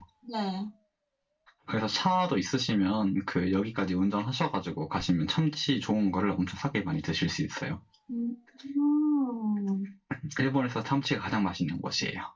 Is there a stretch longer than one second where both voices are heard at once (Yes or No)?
No